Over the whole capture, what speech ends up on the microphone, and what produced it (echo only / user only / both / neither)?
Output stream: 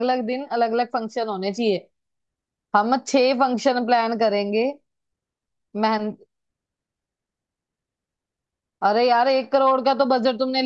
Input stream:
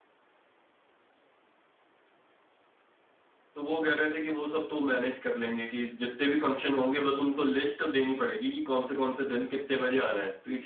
user only